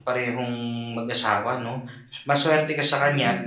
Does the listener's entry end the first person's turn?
No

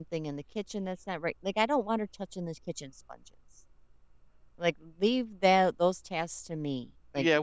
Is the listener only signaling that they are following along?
No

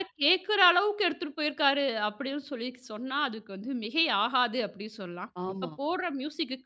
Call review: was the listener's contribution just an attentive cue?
Yes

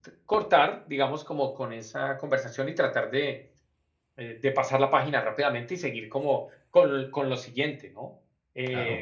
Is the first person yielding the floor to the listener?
Yes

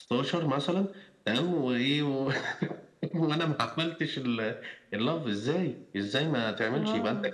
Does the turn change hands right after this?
No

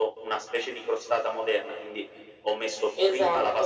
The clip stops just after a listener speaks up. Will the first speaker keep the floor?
Yes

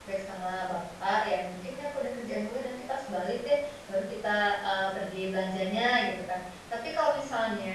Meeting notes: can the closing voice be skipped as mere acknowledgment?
Yes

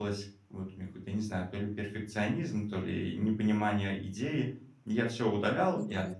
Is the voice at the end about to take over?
No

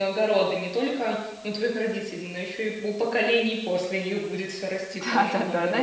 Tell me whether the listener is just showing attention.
No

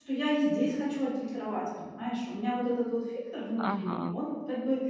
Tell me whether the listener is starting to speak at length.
No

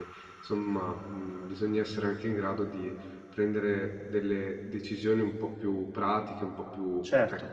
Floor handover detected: Yes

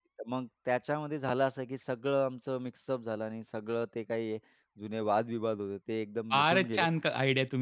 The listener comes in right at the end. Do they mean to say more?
Yes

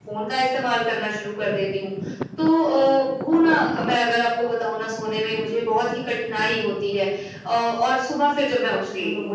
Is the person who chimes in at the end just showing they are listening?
Yes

